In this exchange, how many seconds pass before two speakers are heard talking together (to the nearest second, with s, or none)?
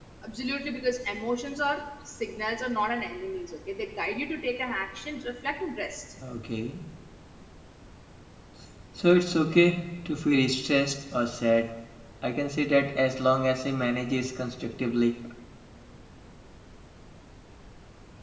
none